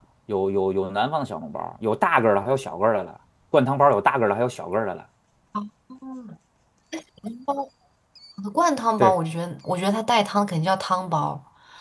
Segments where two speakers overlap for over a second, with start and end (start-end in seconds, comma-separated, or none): none